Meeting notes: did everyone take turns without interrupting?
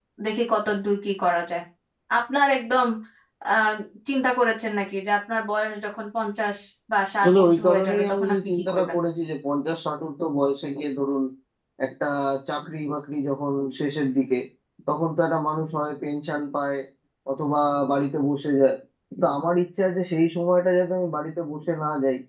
No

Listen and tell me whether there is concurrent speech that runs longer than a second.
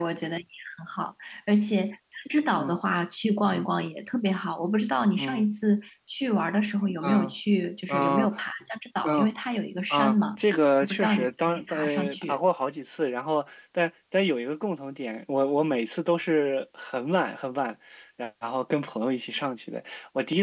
Yes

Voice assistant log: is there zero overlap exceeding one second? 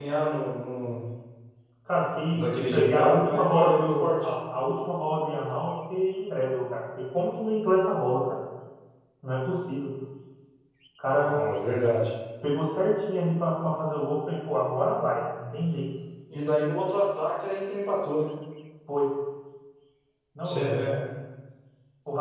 No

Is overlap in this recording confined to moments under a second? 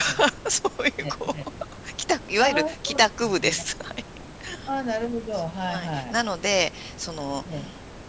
No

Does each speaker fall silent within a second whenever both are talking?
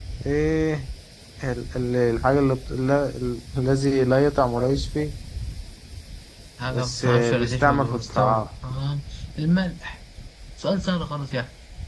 No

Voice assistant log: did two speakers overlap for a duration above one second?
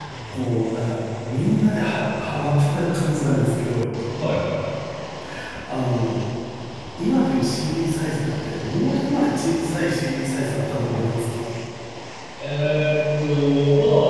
No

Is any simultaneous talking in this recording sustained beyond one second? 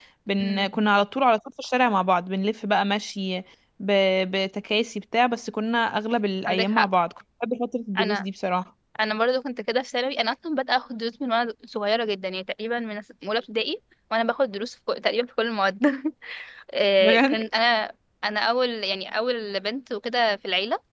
No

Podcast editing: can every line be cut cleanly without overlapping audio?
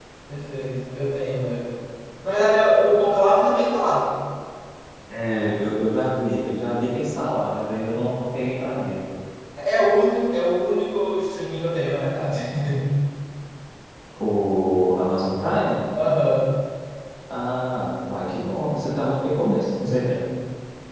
Yes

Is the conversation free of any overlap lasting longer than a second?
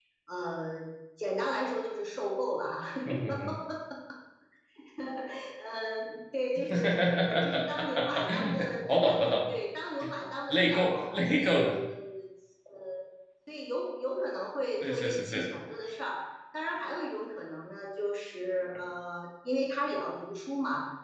No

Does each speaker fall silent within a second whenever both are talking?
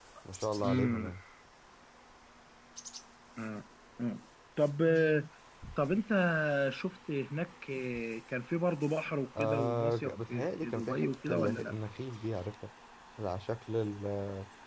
No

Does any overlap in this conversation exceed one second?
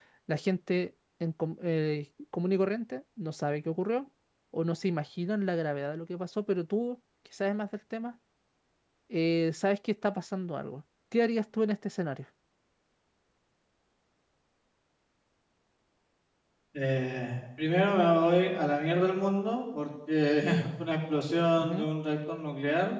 No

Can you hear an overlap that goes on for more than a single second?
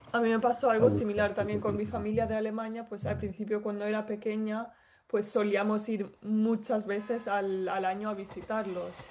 Yes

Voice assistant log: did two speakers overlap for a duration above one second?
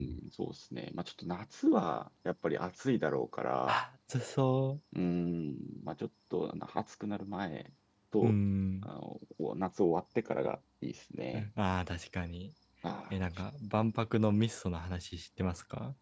No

